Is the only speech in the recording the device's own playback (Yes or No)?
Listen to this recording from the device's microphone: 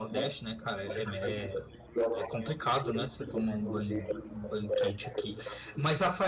No